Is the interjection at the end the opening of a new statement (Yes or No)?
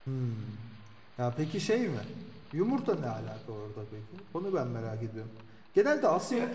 No